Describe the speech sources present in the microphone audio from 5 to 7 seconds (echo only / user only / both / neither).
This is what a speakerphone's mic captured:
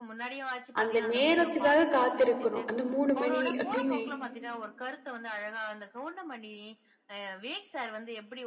echo only